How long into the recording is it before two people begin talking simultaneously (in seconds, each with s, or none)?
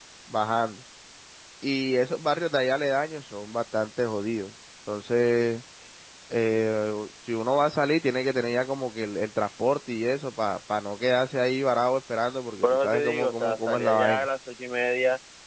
12.6 s